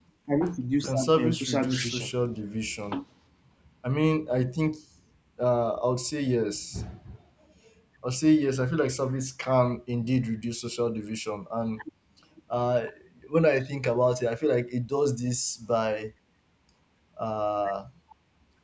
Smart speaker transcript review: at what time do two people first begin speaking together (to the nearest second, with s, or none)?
1 s